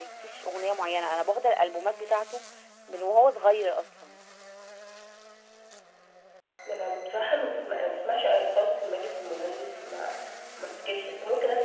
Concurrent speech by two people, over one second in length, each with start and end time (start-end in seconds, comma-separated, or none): none